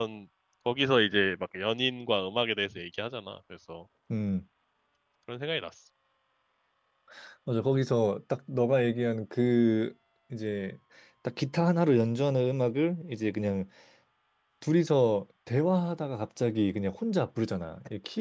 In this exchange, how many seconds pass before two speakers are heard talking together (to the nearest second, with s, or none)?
none